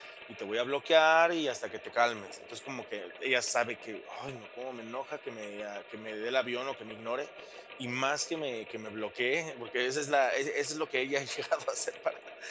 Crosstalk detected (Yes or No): No